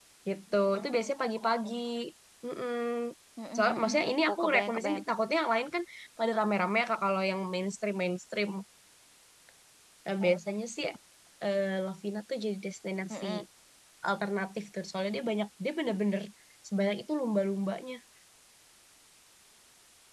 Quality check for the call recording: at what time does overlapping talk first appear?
3.6 s

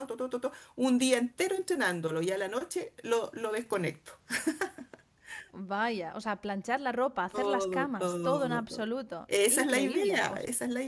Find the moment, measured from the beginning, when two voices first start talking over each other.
7.3 s

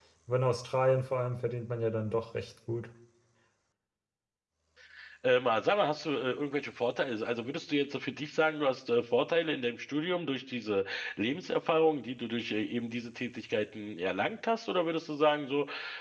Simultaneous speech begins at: none

